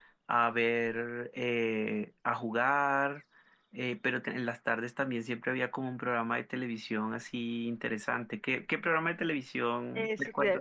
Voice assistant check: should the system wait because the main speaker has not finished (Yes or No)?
No